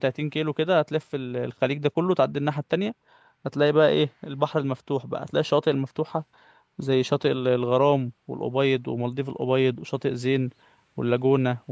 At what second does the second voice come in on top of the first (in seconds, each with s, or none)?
none